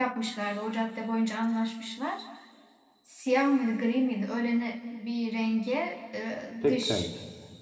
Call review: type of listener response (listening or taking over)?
listening